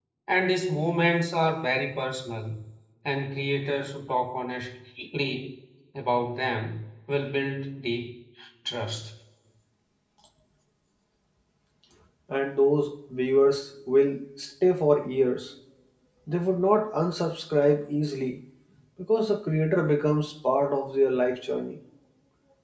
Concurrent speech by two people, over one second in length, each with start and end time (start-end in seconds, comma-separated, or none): none